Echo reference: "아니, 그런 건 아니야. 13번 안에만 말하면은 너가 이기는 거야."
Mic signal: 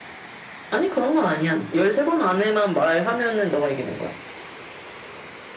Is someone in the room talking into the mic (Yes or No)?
No